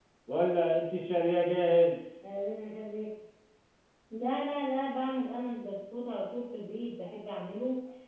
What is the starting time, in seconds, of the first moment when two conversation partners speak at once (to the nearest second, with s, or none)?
none